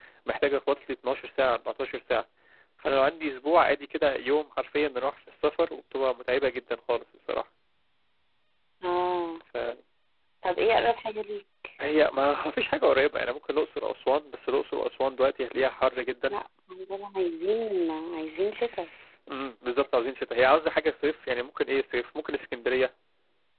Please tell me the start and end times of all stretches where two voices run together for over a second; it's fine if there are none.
none

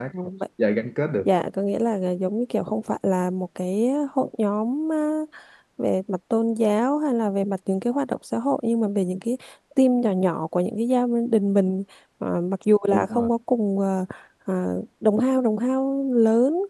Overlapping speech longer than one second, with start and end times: none

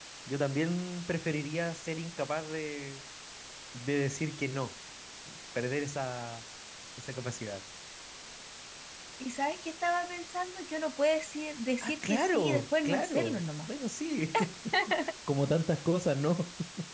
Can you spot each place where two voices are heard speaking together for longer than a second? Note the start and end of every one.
11.8-13.7

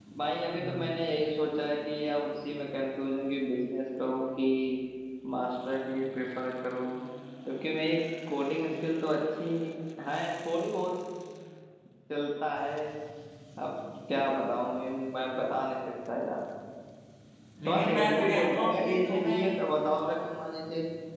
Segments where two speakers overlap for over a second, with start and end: 17.6-19.5

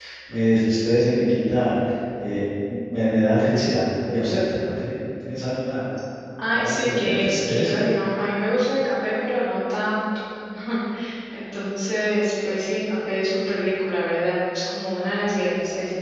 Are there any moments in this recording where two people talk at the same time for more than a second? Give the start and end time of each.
6.5-7.8

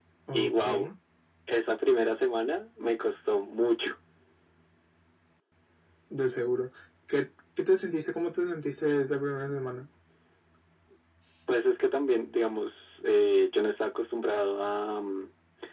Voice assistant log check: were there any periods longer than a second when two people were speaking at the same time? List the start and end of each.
none

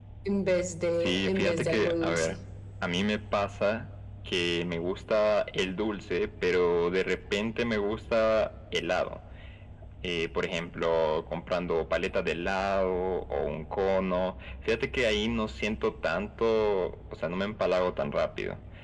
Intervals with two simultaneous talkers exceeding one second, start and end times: 1.0-2.4

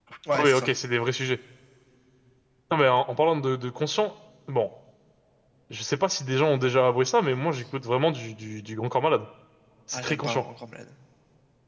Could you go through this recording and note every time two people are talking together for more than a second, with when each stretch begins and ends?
none

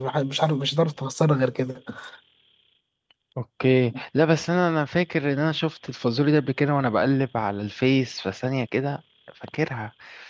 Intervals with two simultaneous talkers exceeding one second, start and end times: none

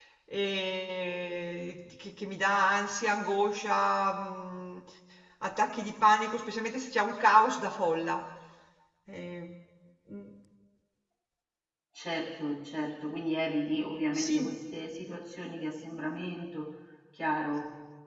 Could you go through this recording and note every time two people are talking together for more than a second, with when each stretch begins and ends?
none

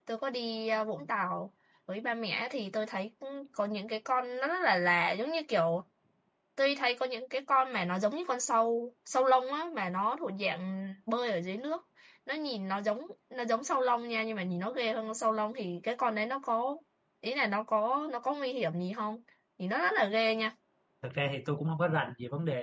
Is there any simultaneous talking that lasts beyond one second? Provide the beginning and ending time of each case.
none

